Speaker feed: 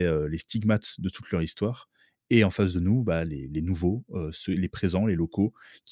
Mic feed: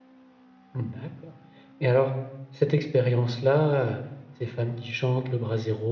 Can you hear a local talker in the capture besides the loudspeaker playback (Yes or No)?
Yes